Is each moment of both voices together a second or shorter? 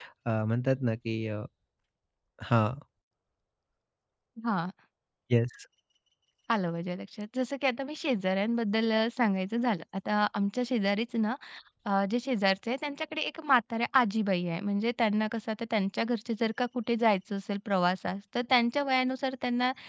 Yes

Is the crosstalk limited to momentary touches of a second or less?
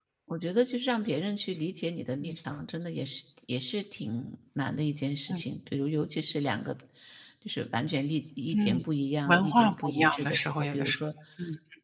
No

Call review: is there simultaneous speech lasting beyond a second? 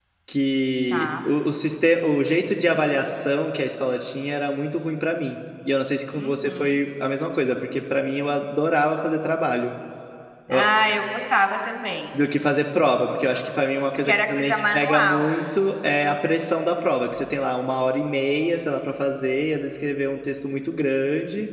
Yes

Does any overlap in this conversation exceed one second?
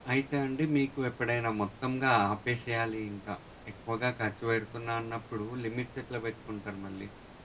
No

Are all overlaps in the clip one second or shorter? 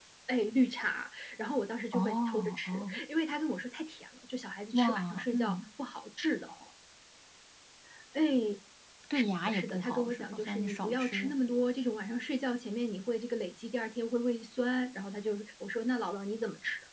No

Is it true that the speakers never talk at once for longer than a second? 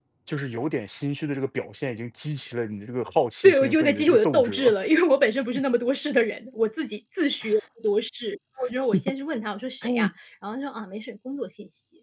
No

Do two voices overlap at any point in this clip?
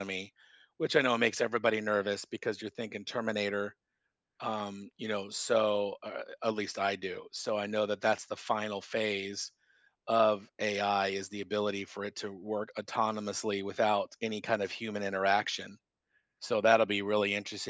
No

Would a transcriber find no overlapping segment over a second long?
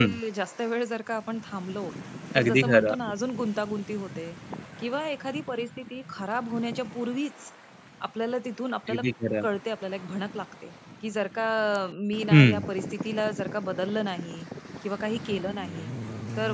Yes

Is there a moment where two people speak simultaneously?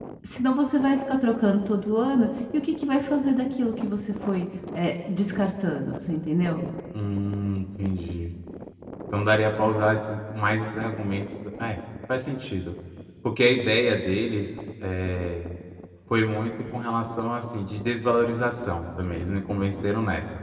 No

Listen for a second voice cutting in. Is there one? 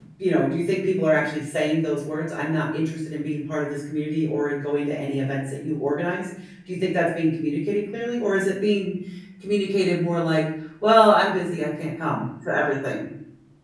No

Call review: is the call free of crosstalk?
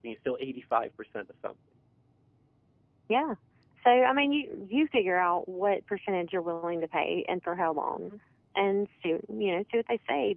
Yes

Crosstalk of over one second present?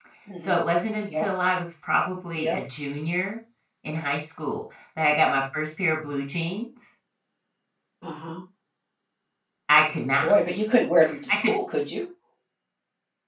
No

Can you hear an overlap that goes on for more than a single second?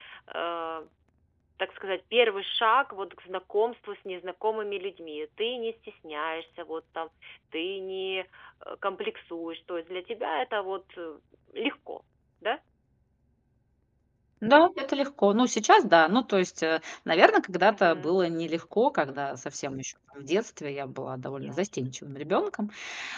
No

